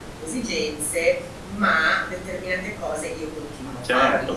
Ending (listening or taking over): taking over